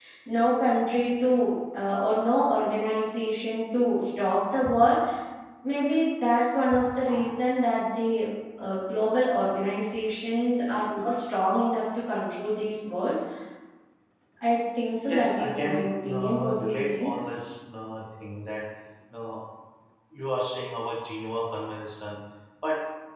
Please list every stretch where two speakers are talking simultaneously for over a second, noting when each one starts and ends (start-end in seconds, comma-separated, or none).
15.1-17.2